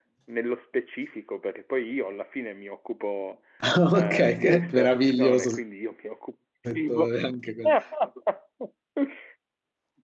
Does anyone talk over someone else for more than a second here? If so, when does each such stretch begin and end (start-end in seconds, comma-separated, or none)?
3.9-5.5